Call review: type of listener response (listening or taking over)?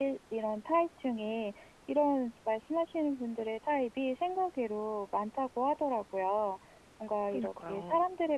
listening